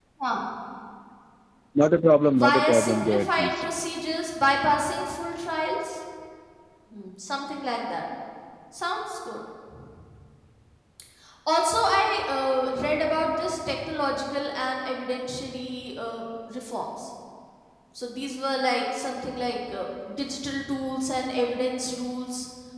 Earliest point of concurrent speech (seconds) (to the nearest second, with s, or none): 2 s